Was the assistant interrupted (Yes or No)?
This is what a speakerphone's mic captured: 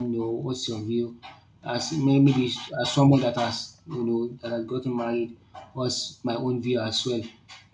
Yes